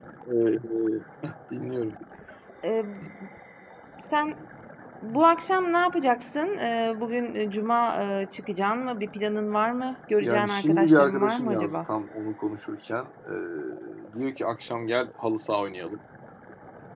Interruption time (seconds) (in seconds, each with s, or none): 10.2 s